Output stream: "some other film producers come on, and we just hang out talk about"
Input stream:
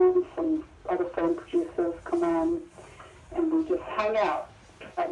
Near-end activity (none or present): none